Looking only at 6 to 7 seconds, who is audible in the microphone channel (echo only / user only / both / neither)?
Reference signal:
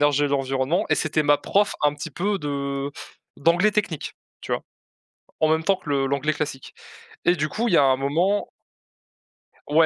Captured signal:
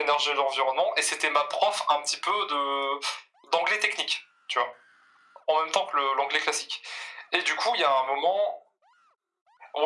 echo only